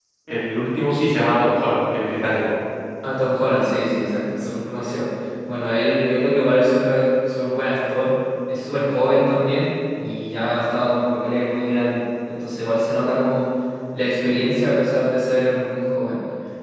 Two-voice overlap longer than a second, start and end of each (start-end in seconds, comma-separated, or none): none